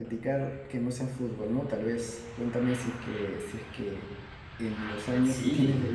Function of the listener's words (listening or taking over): listening